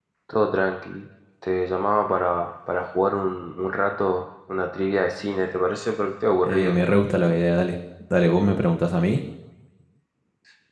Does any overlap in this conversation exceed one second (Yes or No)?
No